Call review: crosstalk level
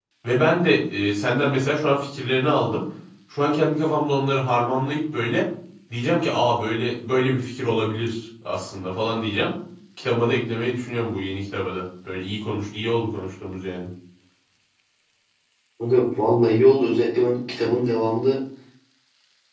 none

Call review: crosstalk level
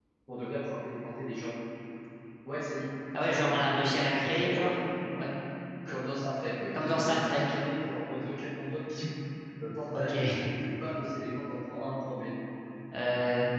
present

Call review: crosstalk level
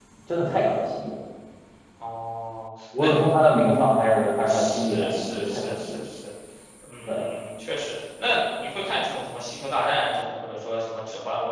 present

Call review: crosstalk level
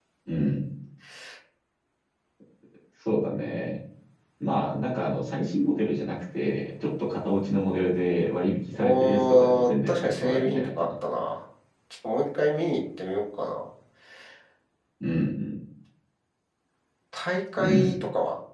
present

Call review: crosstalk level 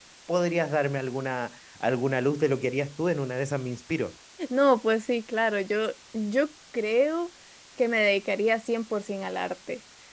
none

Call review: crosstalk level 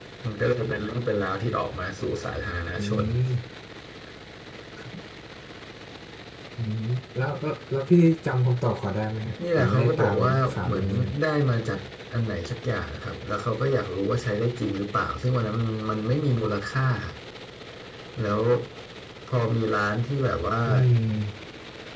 present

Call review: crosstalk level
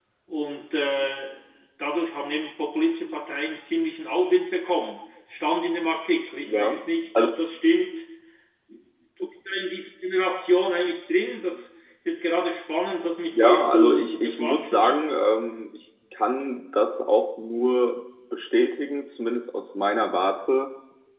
present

